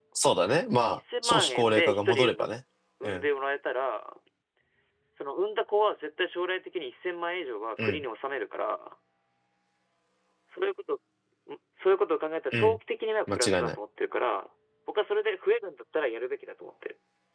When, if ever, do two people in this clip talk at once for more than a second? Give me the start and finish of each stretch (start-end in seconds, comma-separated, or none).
0.9-2.5